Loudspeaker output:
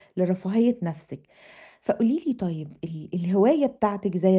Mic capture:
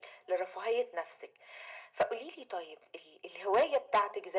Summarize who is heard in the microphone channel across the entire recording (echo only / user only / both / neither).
echo only